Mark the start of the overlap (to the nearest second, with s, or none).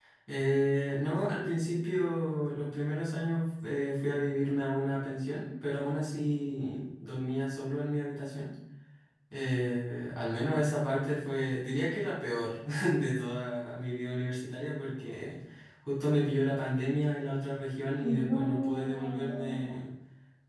18 s